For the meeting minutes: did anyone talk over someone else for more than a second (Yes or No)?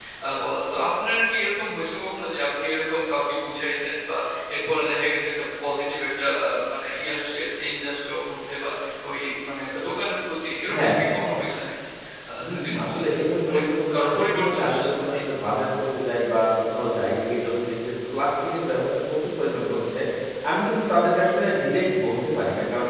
Yes